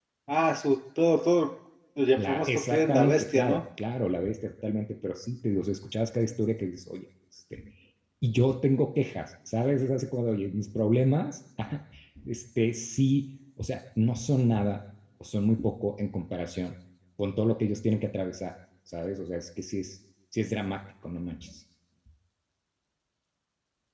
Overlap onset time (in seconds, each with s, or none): 2.2 s